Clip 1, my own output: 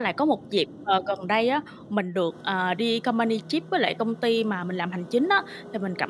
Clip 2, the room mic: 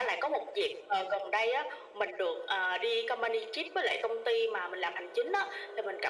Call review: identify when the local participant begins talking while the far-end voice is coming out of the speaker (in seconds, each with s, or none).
none